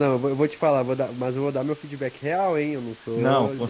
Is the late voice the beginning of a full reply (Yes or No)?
Yes